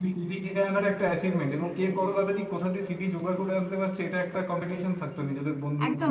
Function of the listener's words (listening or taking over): taking over